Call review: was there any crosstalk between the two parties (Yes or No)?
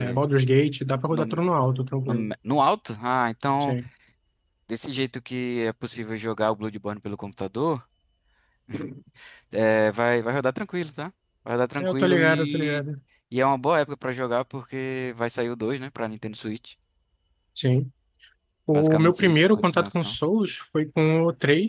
Yes